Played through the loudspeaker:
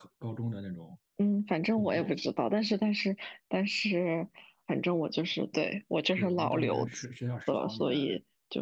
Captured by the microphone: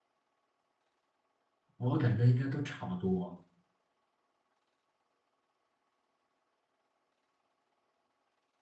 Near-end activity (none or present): present